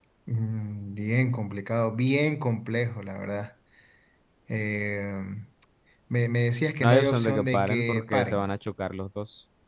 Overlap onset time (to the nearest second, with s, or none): 7 s